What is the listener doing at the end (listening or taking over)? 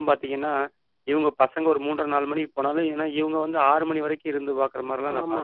taking over